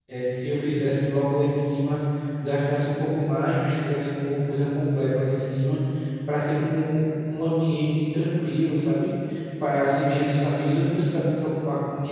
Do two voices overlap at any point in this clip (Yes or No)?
No